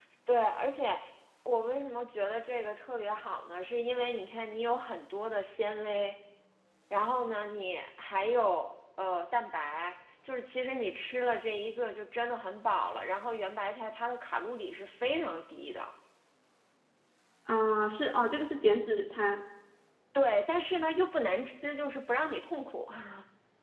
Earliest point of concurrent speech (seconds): none

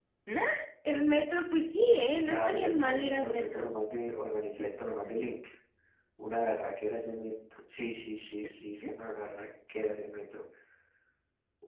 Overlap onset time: 2 s

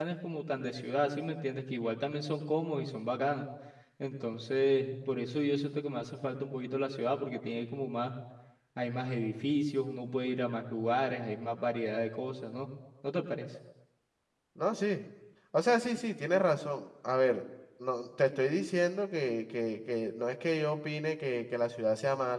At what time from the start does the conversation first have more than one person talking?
none

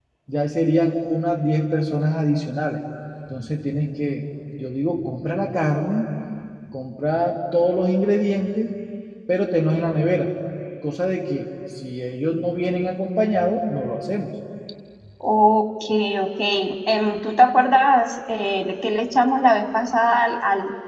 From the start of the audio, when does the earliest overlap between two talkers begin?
none

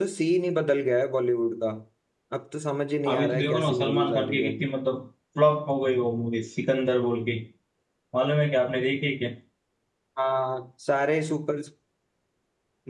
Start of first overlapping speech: 3 s

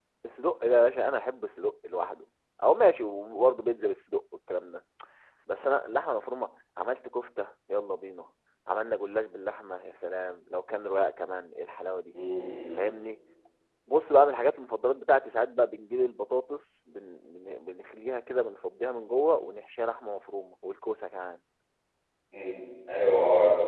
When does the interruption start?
none

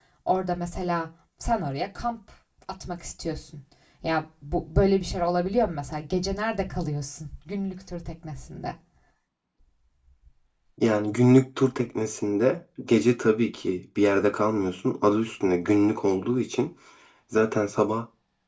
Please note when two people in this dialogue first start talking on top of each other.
none

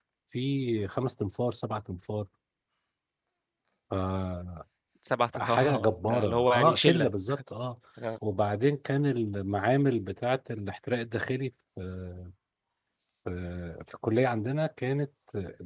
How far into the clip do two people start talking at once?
5 s

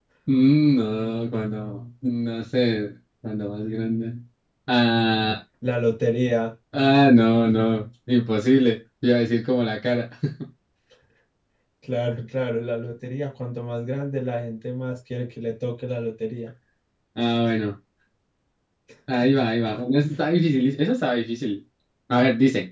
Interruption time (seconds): none

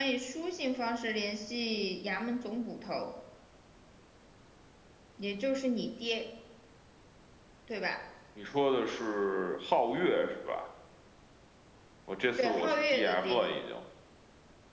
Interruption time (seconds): 12 s

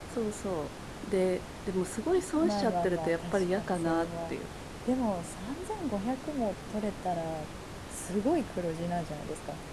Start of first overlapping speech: 2 s

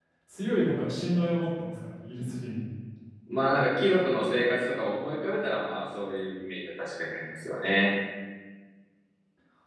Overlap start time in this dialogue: none

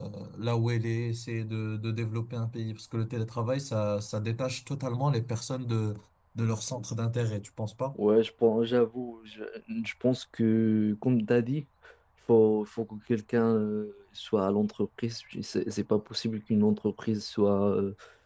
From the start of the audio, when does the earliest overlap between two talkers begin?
none

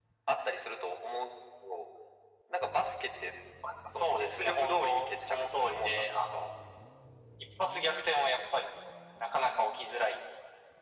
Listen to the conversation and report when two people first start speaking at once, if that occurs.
4 s

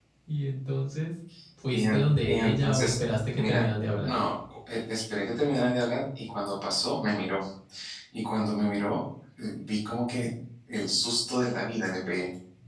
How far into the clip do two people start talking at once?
2 s

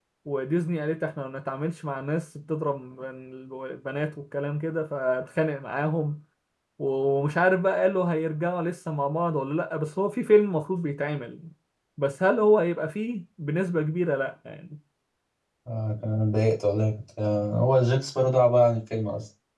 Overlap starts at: none

